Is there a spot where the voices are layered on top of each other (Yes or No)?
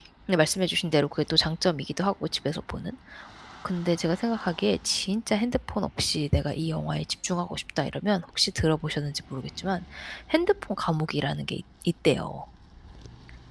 No